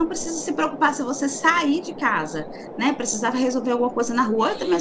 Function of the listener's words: listening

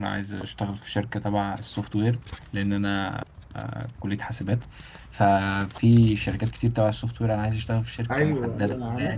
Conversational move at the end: taking over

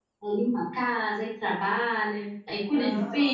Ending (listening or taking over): taking over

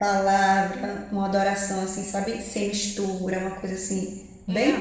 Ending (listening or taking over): taking over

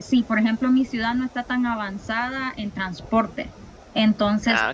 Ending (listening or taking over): listening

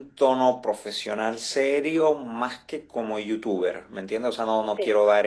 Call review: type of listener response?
listening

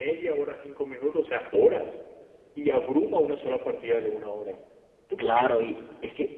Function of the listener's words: taking over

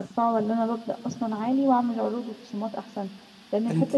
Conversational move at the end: listening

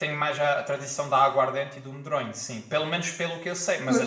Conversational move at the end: listening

